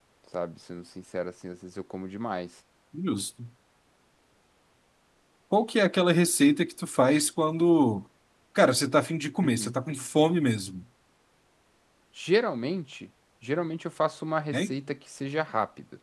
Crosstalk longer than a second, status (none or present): none